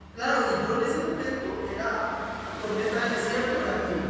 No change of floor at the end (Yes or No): Yes